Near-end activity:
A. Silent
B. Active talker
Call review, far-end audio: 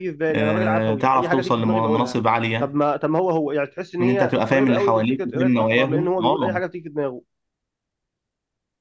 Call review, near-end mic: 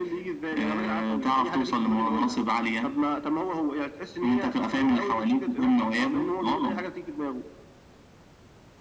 A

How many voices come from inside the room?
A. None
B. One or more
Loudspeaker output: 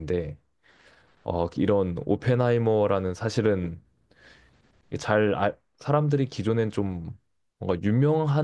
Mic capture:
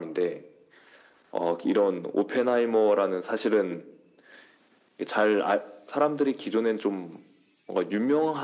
A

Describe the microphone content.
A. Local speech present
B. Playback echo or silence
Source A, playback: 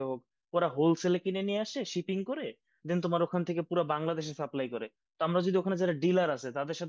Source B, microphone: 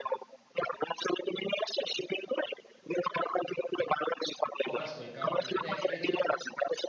A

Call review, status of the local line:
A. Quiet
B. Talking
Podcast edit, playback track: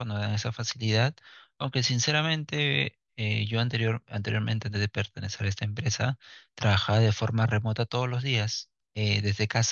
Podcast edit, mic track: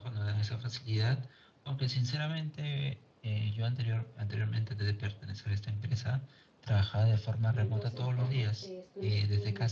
B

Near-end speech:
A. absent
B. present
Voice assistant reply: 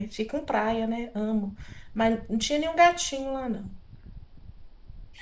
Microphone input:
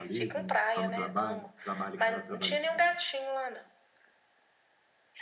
B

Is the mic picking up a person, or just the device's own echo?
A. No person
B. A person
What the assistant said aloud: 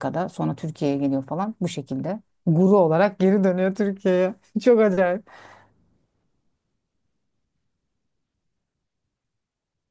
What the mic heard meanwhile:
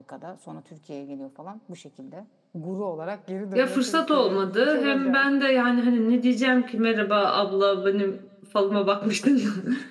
B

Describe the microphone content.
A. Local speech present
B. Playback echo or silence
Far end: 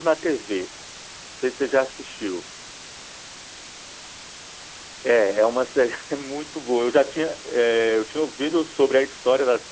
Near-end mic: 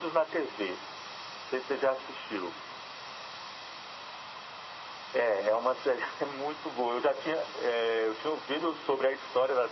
B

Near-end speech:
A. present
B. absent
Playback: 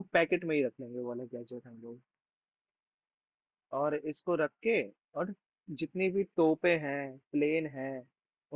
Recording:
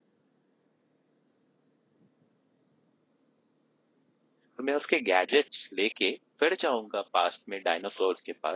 A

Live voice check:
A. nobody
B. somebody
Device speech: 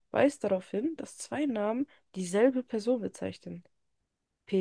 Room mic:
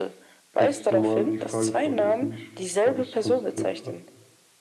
B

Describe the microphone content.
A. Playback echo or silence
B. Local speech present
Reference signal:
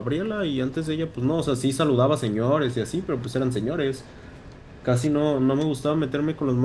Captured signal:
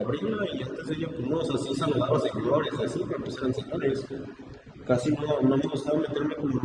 A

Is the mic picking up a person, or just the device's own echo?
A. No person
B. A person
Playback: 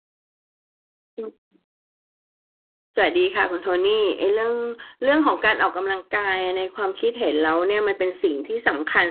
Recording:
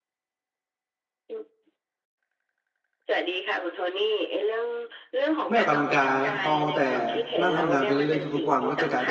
B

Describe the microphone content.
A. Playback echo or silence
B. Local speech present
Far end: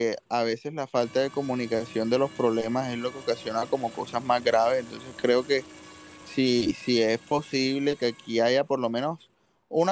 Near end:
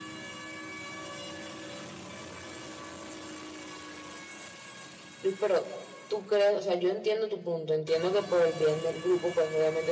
B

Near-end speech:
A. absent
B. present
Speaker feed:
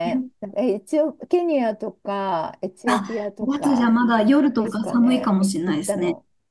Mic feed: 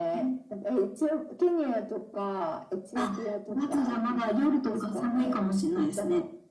A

